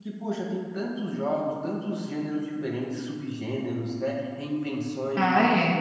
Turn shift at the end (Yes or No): No